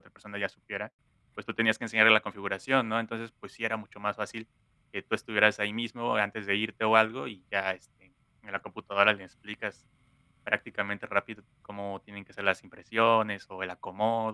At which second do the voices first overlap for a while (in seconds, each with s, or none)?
none